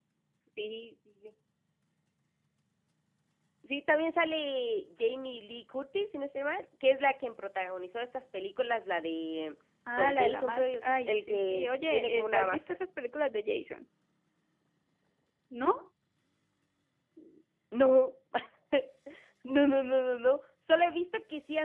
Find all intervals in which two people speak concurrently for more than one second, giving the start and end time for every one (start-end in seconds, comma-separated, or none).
9.9-12.8